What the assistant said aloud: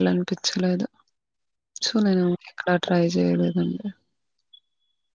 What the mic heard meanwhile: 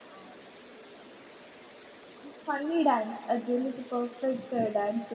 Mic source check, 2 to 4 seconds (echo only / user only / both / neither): user only